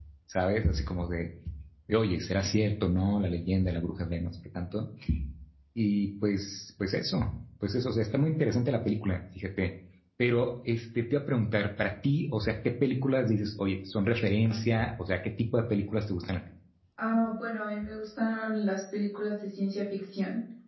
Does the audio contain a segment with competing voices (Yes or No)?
No